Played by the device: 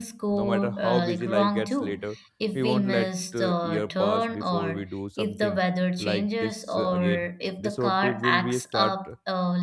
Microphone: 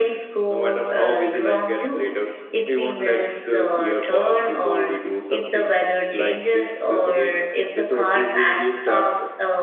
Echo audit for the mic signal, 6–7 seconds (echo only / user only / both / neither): echo only